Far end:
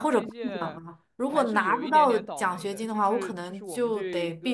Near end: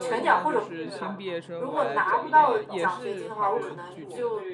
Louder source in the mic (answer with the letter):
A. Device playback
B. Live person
A